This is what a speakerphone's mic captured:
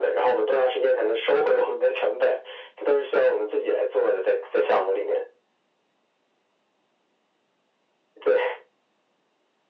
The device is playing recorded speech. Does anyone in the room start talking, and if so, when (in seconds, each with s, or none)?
none